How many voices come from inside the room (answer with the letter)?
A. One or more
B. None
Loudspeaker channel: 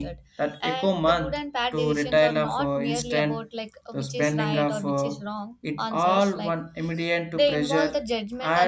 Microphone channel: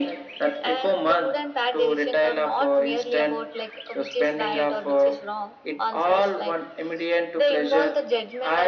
B